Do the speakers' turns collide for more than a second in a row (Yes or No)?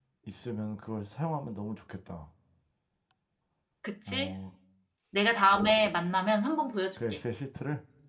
No